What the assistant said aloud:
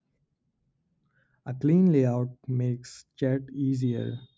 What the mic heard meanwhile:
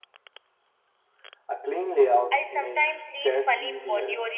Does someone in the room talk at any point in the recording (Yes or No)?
Yes